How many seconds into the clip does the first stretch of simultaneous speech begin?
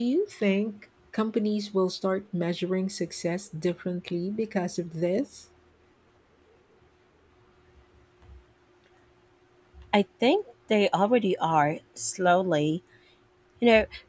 none

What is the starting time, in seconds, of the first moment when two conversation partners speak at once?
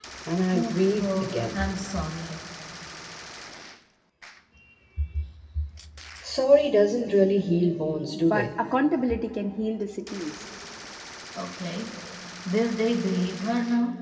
0.5 s

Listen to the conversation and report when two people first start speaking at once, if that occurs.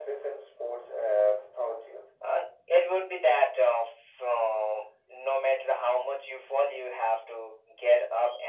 none

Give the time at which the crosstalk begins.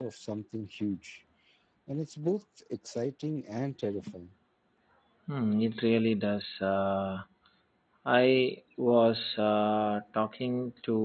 none

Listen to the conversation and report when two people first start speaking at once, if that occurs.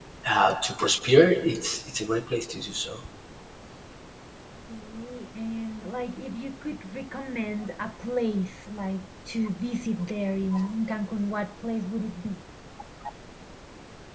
none

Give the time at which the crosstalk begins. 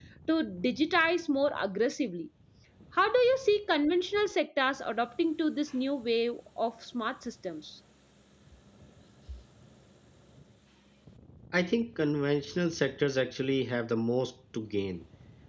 none

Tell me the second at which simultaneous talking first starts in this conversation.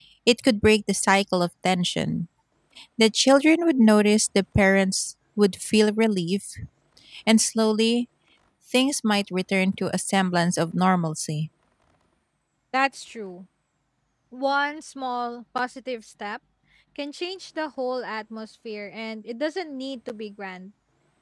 none

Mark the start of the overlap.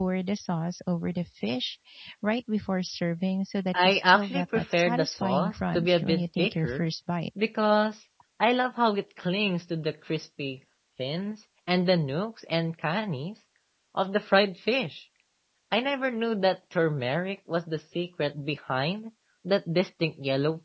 3.7 s

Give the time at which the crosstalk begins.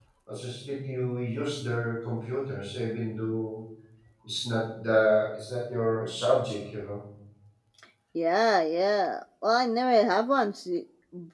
none

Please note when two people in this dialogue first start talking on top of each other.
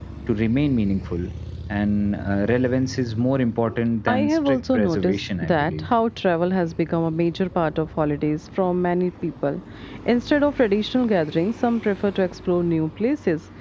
4.1 s

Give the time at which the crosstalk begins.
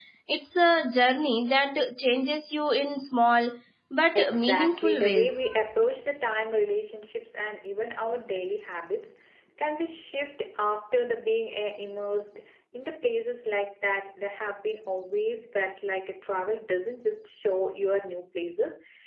4.2 s

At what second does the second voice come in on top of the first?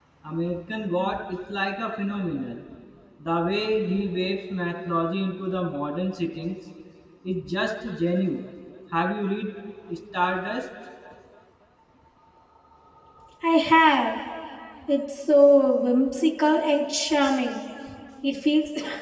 none

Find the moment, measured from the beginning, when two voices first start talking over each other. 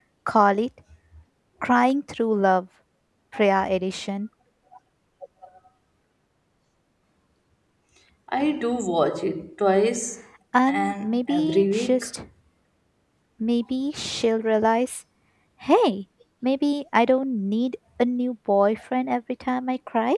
10.7 s

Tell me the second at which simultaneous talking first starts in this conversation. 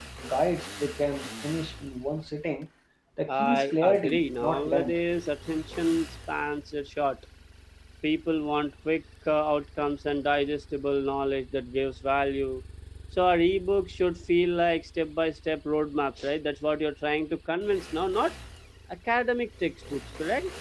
3.3 s

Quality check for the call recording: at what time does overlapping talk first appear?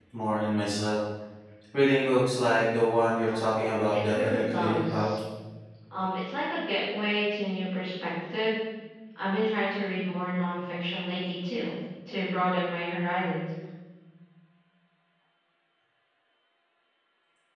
3.2 s

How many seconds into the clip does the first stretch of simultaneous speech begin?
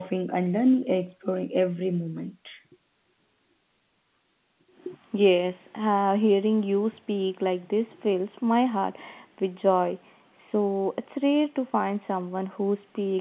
none

